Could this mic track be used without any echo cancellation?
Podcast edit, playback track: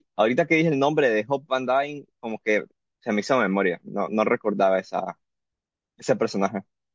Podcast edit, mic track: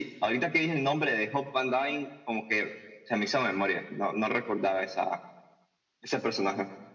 No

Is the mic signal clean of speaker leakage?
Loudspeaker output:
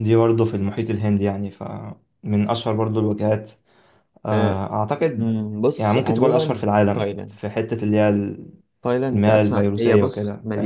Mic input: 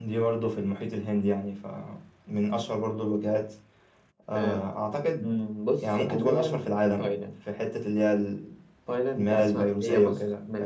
No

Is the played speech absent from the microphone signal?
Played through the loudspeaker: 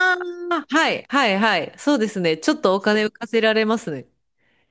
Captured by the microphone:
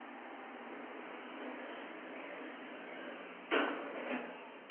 Yes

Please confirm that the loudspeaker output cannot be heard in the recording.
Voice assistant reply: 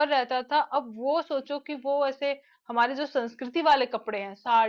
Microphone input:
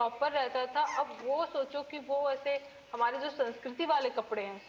No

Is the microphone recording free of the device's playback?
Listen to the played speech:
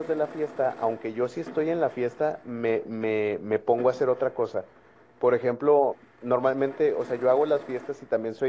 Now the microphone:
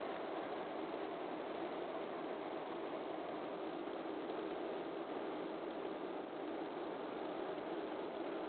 Yes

